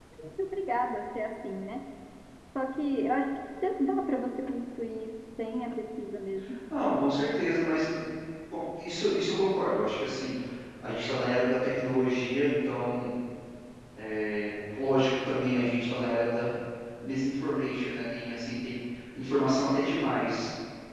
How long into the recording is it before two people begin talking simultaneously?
none

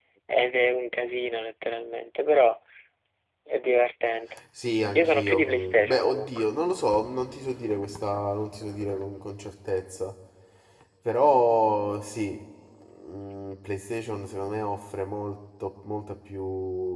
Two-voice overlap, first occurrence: 5.0 s

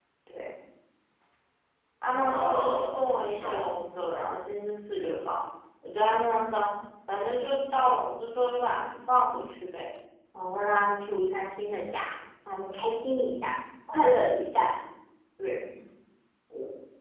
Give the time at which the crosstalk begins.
2.2 s

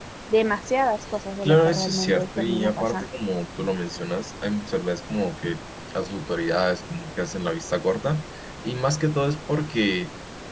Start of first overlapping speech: 1.4 s

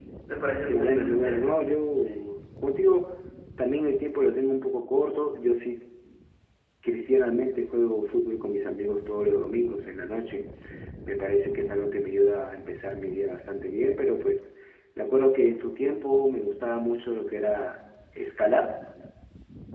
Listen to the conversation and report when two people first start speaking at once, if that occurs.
0.7 s

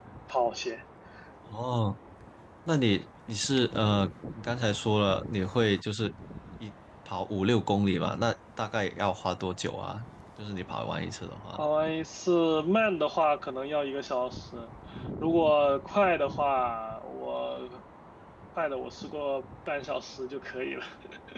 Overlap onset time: none

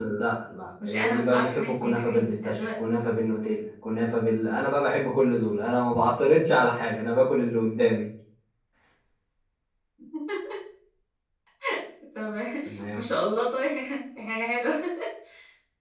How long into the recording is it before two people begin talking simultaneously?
0.8 s

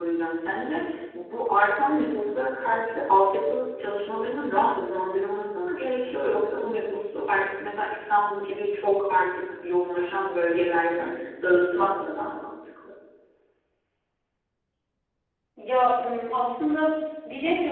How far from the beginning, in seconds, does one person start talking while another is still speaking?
none

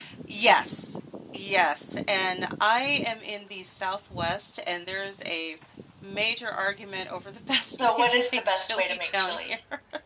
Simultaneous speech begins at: 7.6 s

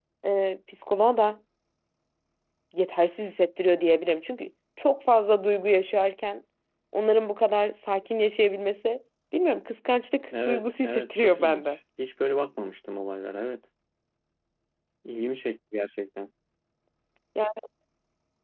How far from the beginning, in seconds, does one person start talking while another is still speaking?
10.3 s

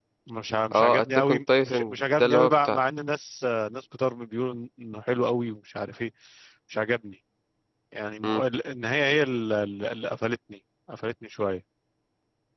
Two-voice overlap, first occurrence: 0.7 s

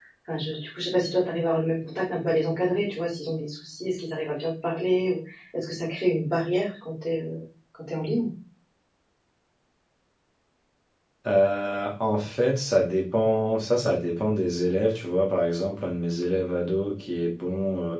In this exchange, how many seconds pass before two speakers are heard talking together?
none

